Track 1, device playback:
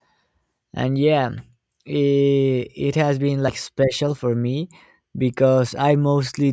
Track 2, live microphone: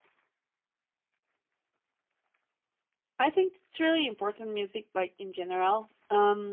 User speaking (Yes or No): Yes